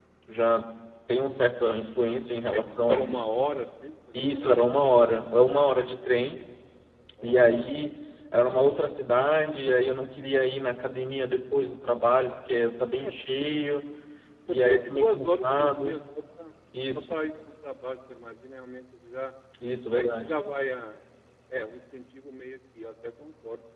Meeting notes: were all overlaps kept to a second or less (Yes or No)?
No